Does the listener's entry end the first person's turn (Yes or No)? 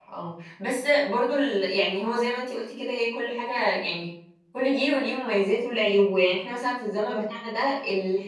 No